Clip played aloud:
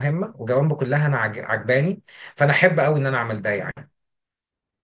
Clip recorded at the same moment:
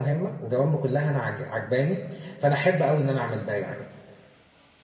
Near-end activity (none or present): none